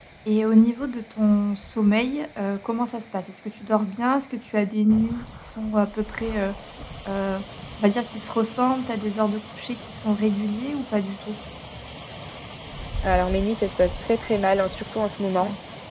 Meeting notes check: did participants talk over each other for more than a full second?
No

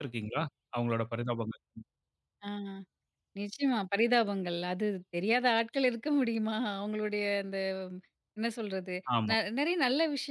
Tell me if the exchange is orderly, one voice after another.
Yes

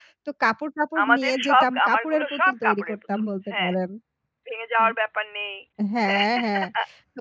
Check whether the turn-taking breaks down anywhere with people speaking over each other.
Yes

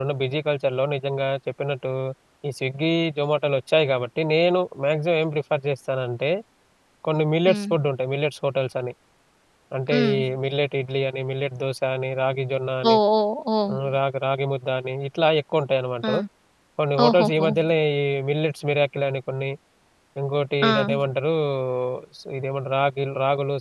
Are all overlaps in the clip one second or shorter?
Yes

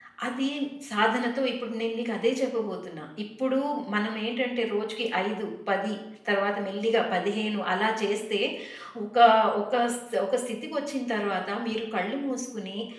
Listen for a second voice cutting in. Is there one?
No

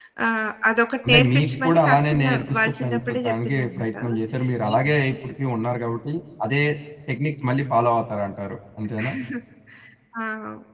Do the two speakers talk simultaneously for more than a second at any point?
Yes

